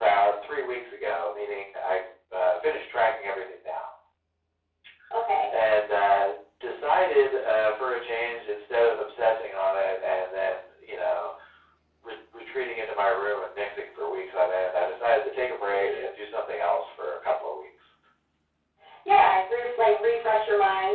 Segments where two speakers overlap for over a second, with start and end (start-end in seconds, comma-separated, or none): none